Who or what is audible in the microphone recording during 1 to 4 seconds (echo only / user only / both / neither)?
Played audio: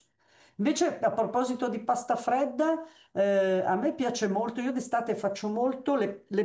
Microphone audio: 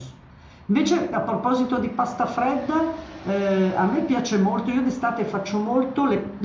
echo only